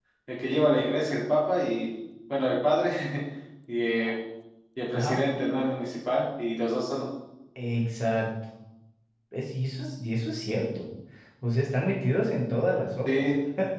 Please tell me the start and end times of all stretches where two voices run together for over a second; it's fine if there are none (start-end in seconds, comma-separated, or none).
none